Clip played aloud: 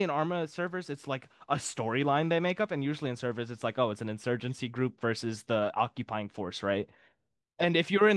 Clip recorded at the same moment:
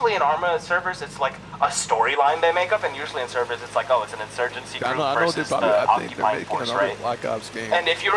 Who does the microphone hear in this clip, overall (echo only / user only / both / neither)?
both